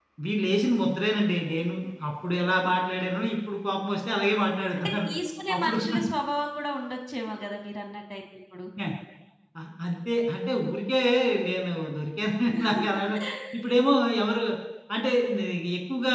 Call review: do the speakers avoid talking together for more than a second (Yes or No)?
Yes